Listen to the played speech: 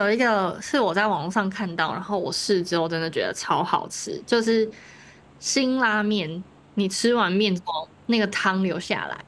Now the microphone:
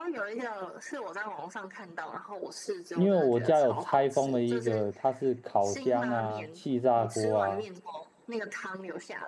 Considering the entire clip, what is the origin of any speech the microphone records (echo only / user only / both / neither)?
both